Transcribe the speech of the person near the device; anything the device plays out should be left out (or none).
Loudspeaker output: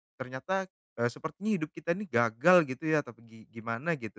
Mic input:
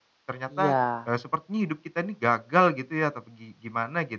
Iya.